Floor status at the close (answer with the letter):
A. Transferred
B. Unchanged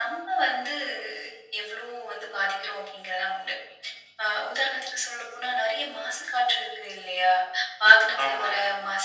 B